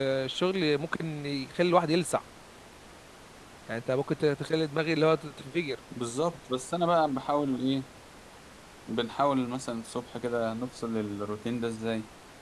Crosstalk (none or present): none